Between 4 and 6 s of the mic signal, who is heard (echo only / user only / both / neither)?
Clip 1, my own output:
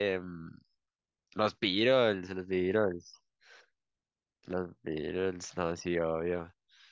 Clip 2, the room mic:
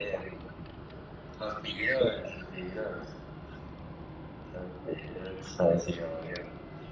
echo only